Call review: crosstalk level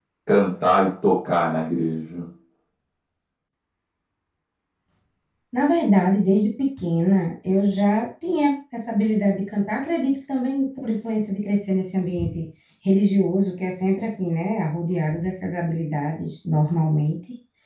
none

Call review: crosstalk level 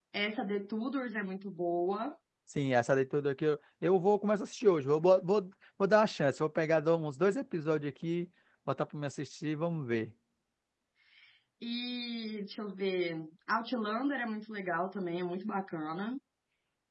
none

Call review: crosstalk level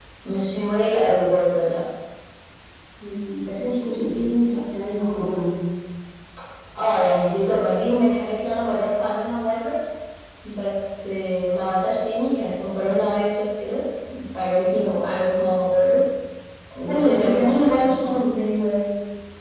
present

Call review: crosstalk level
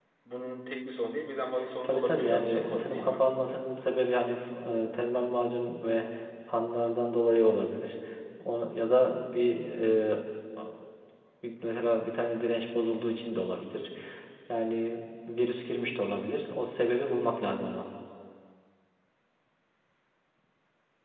present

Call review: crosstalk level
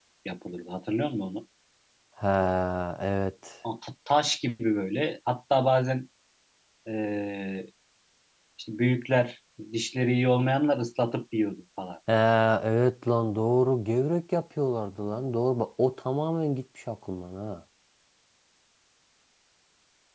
none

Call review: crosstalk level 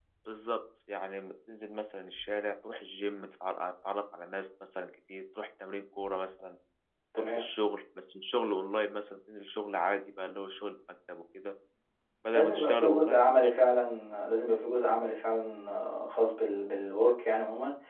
present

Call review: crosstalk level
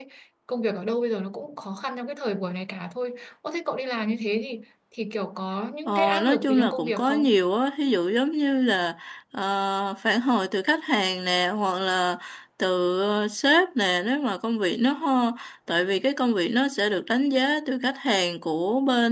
present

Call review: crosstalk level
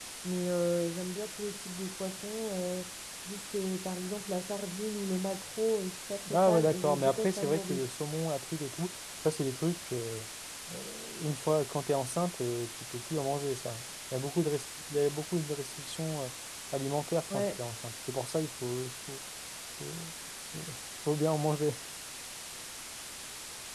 present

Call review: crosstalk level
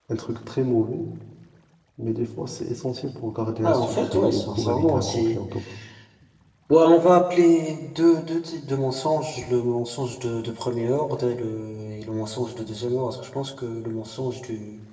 present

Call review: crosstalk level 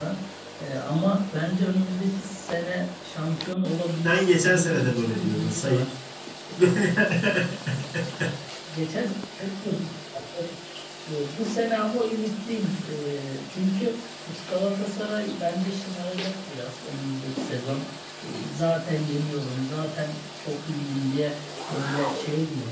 present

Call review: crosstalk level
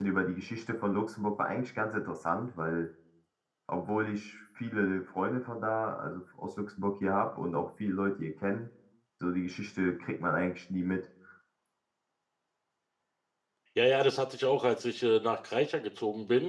none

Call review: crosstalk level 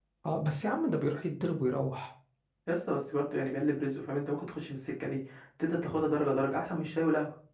none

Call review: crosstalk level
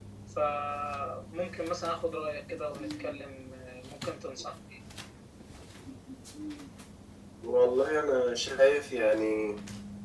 none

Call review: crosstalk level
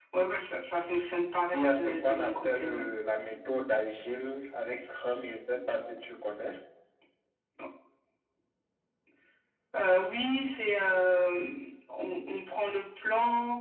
present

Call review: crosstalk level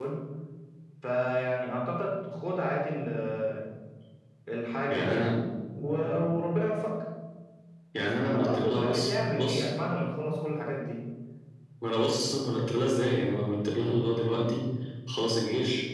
present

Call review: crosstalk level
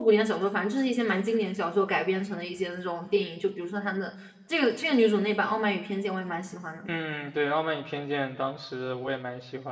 none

